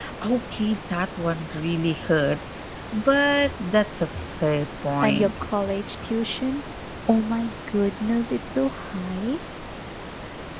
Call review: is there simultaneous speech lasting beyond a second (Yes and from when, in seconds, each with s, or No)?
No